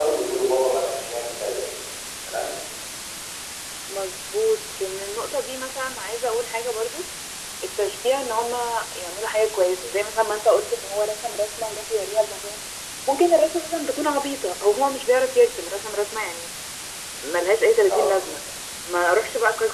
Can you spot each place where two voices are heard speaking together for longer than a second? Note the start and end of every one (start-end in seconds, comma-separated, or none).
none